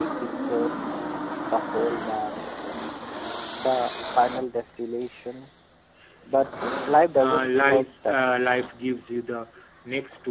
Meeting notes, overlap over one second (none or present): present